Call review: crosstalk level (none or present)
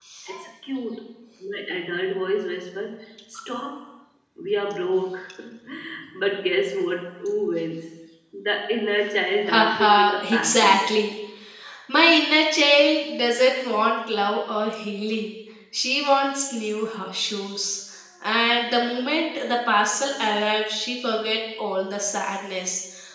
present